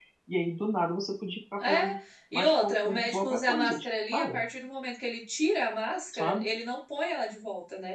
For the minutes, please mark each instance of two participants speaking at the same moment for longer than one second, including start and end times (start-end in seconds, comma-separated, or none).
2.3-4.4